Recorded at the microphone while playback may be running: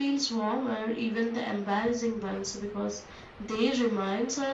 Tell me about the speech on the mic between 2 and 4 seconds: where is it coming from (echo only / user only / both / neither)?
echo only